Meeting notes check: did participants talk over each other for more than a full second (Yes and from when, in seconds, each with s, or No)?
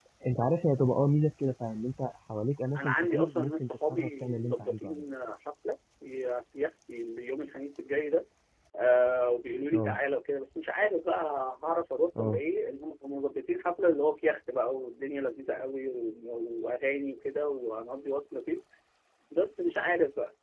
Yes, from 2.8 s